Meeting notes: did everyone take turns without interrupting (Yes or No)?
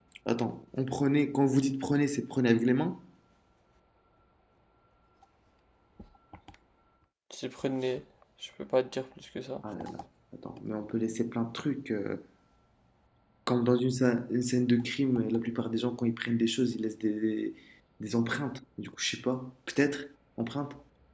Yes